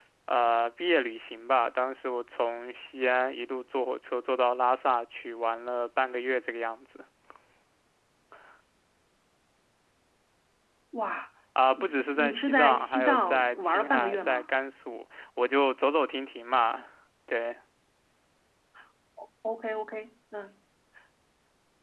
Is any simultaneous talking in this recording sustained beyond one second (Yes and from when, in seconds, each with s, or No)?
Yes, from 11.8 s